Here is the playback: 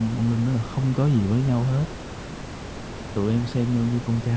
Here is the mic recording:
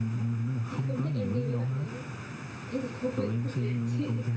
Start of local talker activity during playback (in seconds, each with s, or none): 0.7 s